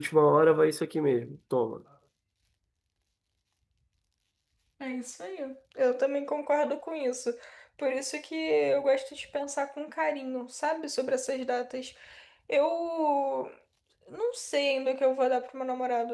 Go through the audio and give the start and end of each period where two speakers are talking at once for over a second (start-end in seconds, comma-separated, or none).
none